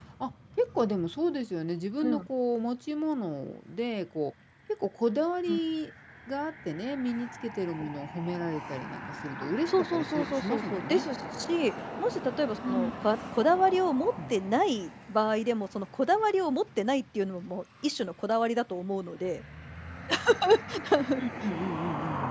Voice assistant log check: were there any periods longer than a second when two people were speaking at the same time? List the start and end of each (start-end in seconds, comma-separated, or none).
9.7-11.0